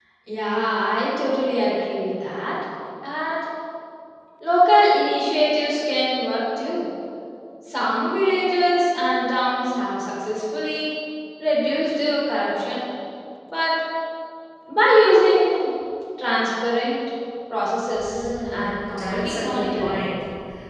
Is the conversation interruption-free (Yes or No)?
No